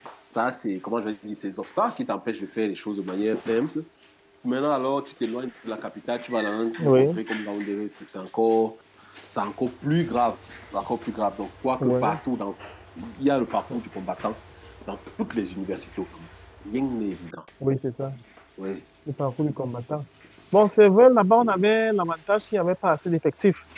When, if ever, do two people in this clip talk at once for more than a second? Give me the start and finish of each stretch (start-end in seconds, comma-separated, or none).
none